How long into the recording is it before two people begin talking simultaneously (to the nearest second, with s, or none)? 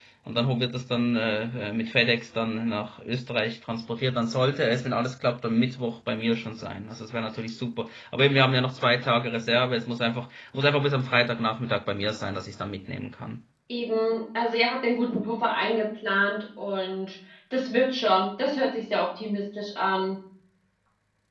none